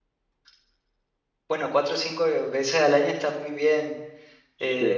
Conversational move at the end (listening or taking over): listening